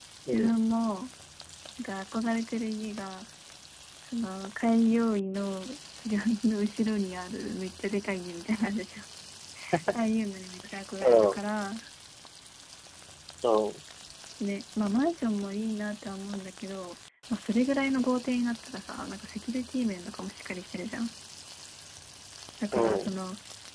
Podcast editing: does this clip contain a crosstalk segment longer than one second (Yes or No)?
No